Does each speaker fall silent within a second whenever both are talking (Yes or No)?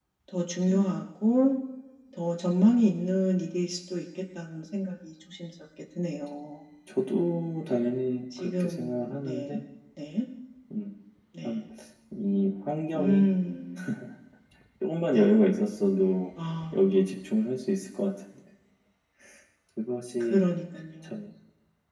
No